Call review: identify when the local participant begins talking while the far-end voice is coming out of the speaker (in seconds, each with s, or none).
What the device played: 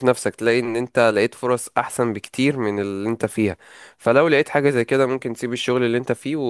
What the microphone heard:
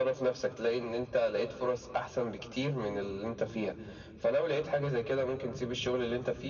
none